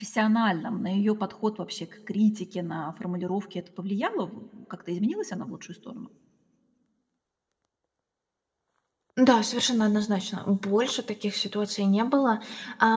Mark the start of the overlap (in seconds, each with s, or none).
none